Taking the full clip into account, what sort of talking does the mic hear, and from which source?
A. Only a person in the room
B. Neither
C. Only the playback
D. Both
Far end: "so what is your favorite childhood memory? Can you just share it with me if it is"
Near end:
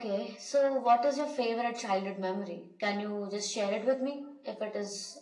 C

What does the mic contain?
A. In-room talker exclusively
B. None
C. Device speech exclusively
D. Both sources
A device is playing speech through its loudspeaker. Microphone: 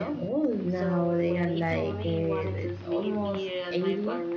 D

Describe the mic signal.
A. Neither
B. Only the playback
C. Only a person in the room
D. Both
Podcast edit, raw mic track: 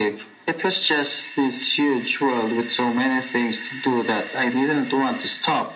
B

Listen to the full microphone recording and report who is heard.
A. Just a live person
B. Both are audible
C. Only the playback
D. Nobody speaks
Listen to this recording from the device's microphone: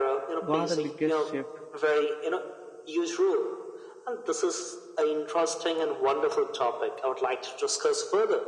B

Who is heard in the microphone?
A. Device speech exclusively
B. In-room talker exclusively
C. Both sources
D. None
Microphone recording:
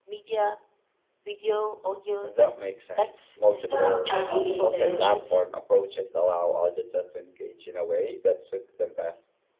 C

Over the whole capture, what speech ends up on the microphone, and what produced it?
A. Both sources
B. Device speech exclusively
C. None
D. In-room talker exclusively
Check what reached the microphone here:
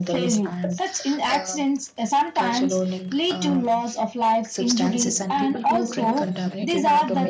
A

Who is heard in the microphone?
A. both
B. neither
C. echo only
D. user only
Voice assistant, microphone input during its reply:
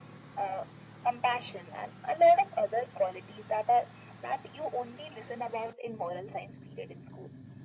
C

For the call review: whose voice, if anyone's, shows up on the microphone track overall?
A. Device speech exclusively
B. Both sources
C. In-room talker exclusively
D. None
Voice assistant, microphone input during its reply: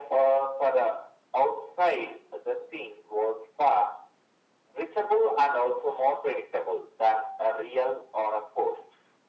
A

